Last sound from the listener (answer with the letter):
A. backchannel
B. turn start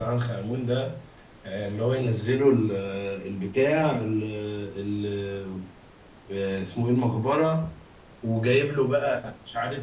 A